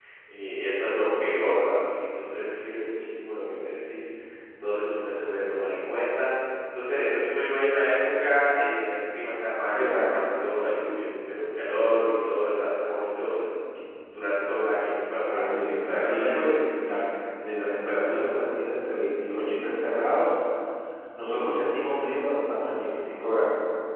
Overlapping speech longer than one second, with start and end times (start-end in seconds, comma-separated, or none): 15.3-16.6